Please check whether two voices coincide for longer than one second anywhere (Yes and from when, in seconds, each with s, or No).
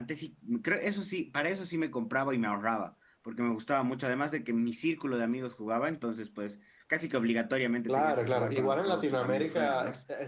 Yes, from 7.9 s